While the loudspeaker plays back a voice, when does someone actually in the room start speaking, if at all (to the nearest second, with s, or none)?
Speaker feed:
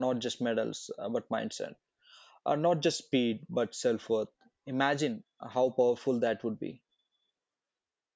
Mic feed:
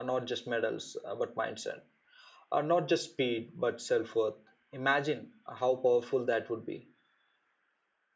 none